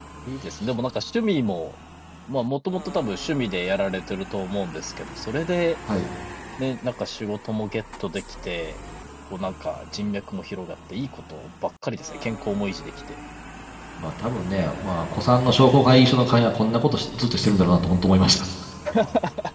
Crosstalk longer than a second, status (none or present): none